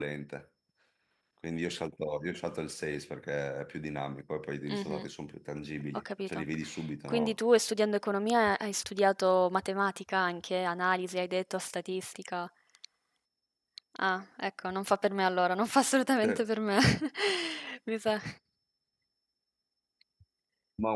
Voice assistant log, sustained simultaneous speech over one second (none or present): none